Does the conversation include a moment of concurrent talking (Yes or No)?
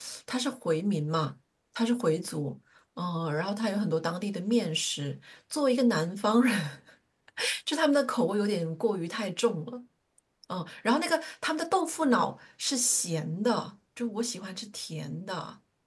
No